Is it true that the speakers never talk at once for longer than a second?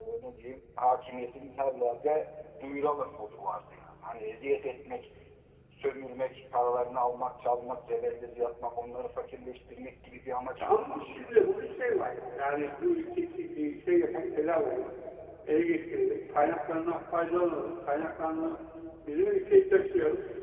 Yes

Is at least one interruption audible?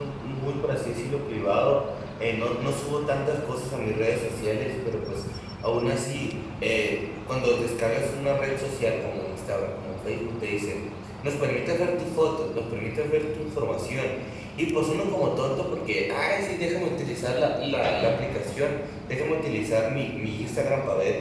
No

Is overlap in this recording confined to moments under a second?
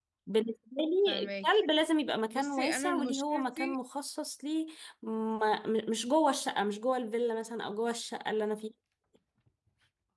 No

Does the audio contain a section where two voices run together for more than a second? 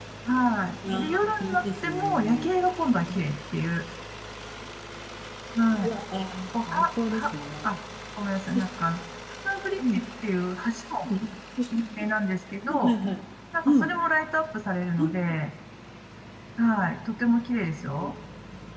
Yes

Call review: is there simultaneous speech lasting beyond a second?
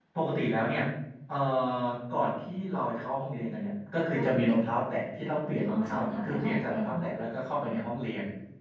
Yes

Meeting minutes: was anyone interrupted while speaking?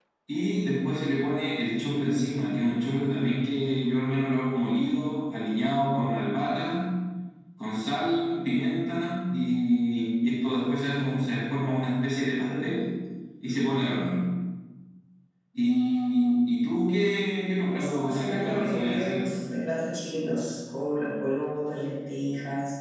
Yes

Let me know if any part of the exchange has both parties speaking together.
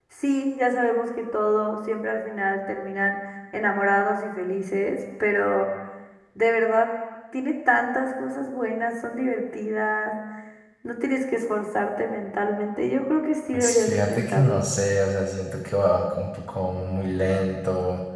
Yes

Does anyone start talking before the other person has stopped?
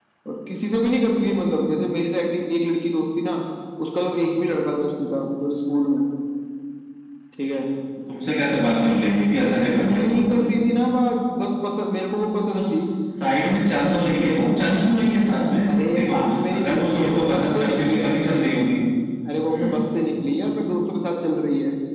Yes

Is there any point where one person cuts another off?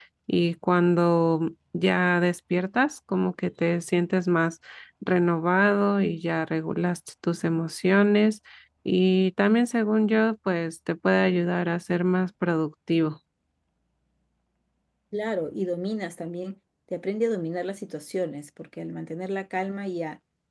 No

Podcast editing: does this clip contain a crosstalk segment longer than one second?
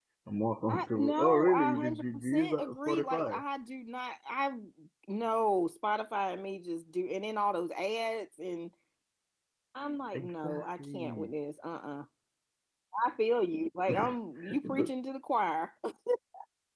Yes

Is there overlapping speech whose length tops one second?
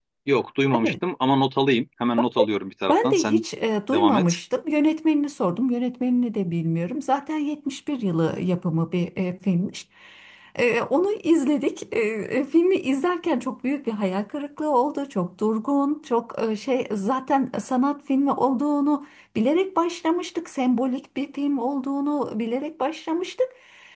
No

